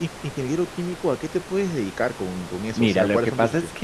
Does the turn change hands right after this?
Yes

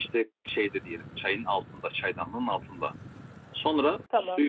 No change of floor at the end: Yes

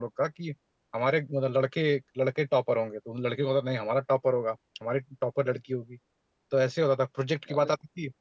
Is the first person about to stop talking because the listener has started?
No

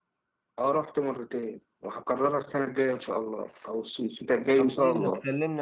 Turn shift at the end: Yes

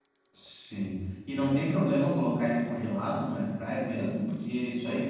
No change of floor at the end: Yes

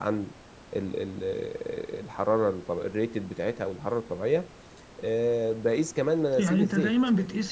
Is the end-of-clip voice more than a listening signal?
Yes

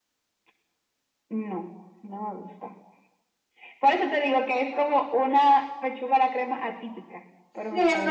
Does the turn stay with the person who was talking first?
No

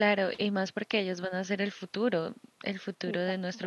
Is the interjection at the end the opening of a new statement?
No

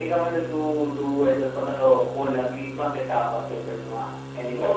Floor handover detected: Yes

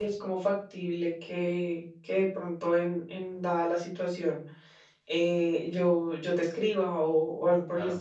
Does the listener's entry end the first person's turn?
Yes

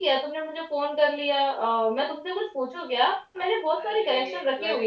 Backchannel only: No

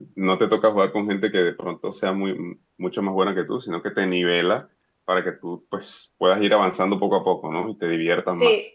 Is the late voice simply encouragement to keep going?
No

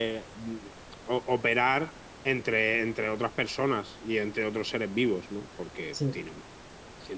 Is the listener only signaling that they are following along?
Yes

